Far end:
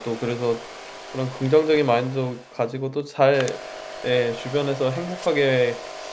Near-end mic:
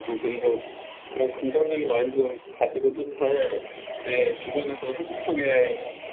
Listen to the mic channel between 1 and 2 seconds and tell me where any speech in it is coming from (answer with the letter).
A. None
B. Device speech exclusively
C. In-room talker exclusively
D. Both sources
B